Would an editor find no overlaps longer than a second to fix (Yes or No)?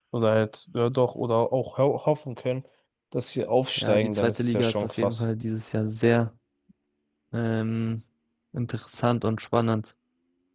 No